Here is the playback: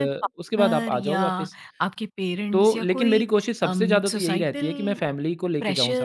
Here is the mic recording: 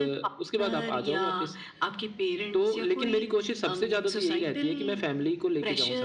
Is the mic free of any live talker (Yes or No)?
Yes